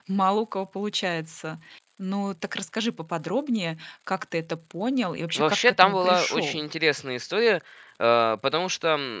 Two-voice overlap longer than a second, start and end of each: 5.3-6.6

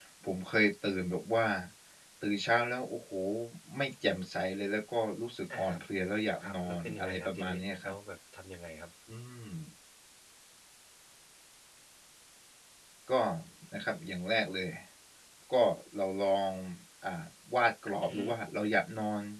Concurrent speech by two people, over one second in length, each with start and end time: 6.4-7.9

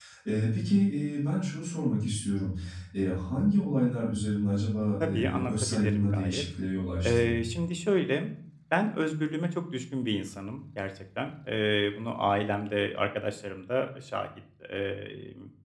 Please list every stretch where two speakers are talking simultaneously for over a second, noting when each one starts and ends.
5.0-6.4

